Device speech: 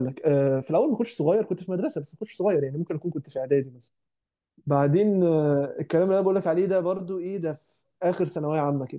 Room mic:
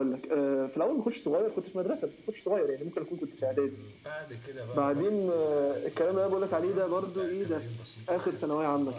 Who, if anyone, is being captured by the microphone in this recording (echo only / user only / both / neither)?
both